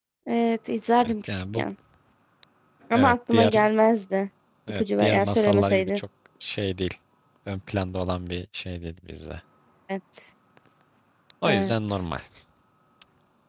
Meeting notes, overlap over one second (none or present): present